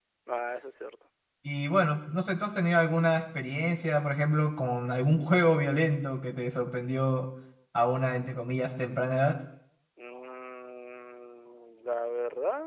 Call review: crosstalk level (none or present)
none